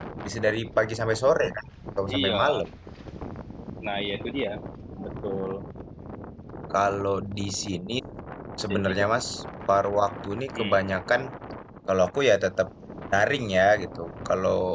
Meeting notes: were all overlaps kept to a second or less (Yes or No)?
Yes